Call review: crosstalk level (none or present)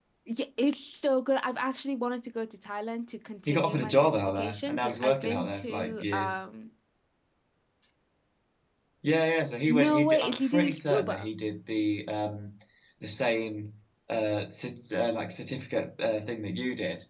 present